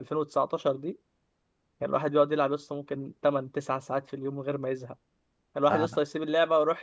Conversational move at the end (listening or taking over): listening